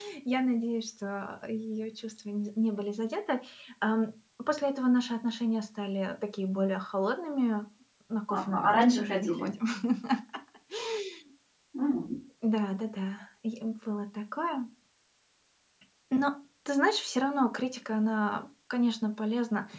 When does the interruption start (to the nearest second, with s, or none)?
8 s